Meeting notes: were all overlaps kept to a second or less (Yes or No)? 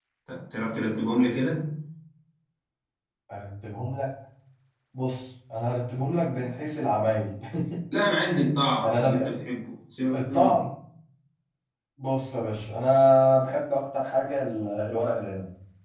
Yes